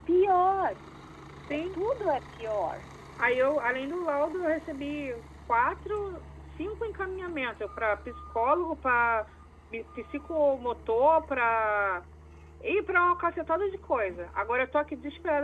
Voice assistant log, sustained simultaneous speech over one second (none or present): none